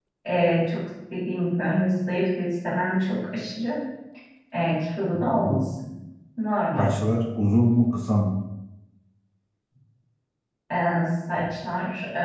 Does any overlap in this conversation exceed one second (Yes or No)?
No